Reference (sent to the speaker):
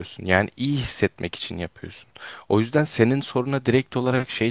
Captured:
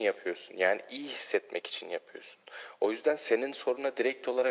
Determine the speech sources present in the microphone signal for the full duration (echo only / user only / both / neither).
echo only